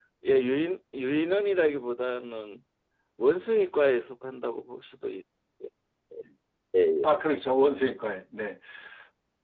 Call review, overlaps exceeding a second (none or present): none